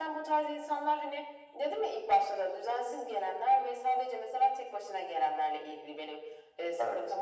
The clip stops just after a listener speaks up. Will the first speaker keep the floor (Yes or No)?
Yes